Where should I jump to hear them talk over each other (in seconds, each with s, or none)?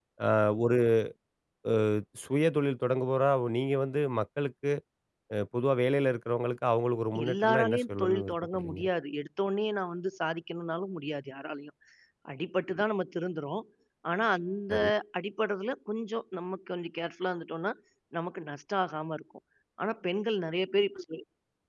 7.2 s